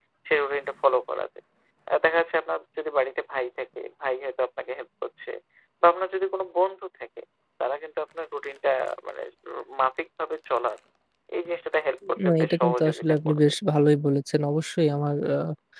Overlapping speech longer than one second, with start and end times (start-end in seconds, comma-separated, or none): 12.2-13.5